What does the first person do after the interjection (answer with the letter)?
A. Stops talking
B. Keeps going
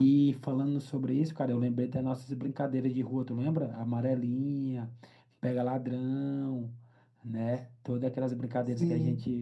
A